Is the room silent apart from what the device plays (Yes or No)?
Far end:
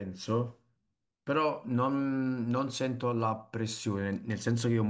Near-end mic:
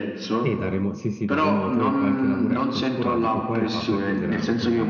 No